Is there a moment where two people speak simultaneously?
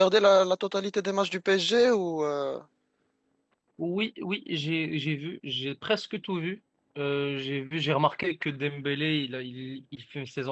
No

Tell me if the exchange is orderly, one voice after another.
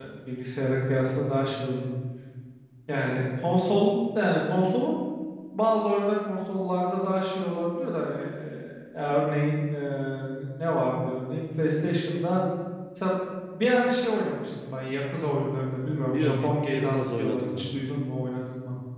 No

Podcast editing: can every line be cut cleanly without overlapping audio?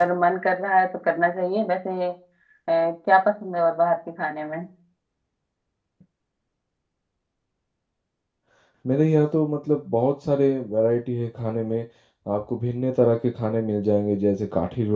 Yes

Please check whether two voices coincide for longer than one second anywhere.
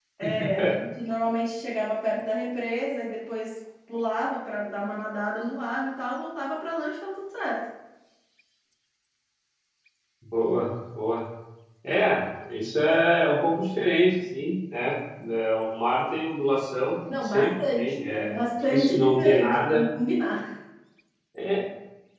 Yes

